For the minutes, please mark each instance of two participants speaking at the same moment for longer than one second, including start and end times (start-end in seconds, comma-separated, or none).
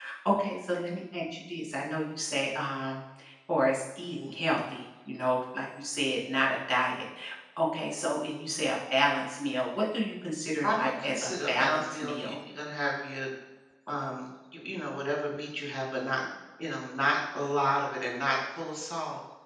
10.6-12.4